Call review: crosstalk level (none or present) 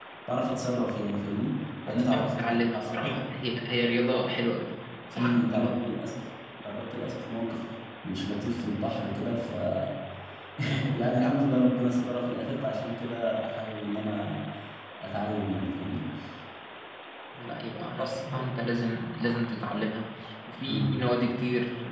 present